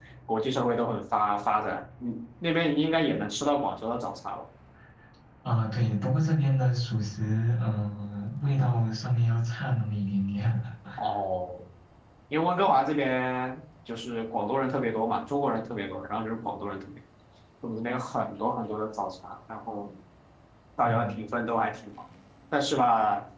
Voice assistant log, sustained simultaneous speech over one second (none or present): none